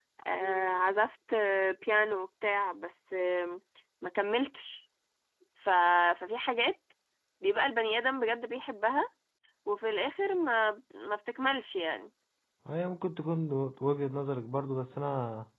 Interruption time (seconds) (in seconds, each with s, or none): none